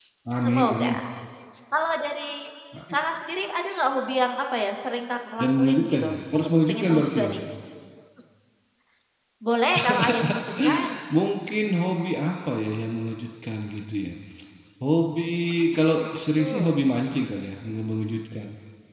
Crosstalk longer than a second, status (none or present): present